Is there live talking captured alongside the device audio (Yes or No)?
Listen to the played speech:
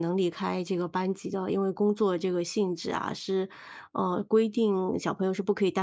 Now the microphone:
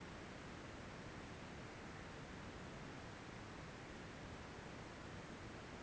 No